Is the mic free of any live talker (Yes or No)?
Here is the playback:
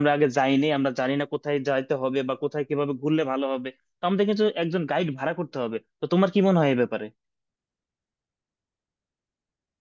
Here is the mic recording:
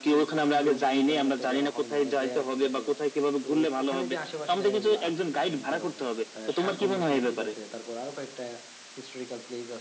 No